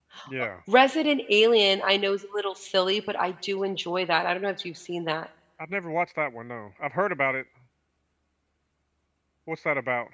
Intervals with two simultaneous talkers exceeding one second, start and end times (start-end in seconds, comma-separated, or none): none